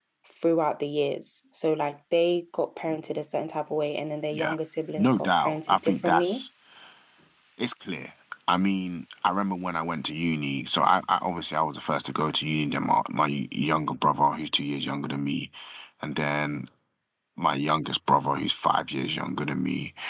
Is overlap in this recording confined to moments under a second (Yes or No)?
No